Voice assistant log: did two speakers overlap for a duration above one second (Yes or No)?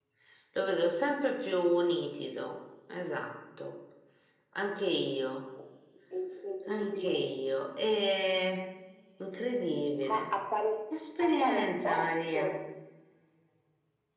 Yes